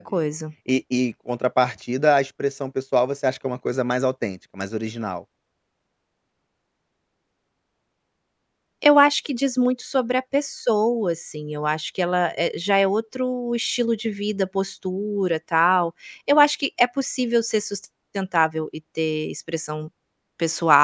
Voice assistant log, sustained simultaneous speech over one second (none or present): none